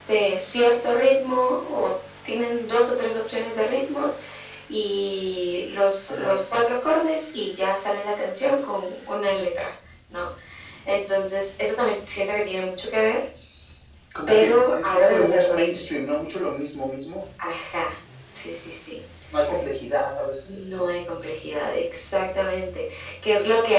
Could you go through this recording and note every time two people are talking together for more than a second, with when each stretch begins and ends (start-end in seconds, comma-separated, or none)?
14.3-15.8